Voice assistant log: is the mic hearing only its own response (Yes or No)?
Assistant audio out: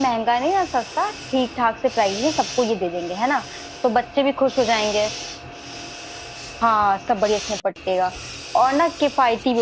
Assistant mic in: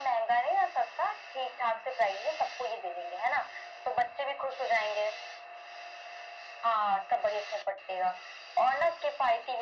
Yes